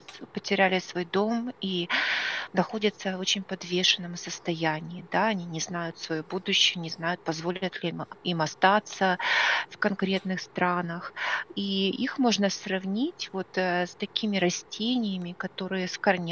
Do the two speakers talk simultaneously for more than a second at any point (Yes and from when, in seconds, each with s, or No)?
No